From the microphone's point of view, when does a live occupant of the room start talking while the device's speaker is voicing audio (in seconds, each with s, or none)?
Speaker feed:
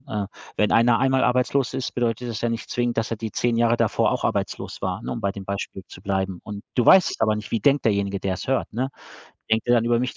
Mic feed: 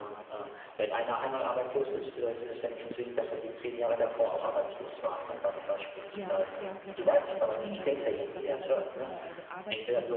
6.1 s